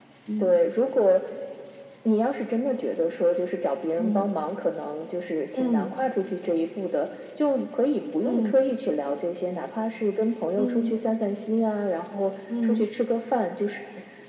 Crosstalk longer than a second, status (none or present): none